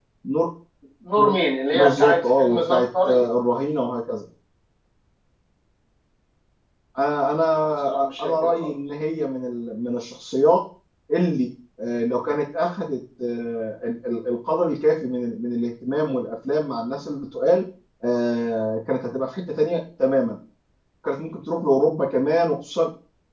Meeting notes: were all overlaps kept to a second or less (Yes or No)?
No